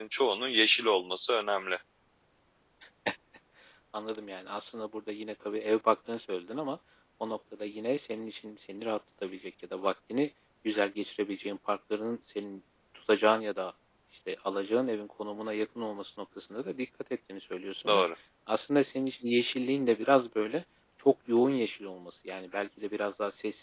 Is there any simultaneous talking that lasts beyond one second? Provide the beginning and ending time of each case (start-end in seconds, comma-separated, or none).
none